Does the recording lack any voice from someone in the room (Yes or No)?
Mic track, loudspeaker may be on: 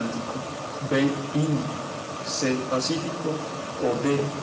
Yes